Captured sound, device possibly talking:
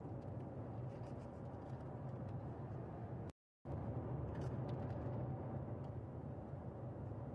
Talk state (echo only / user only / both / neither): neither